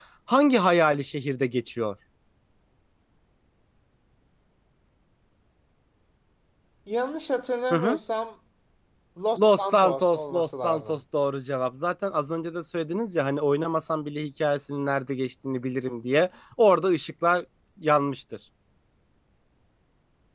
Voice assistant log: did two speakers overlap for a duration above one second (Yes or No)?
Yes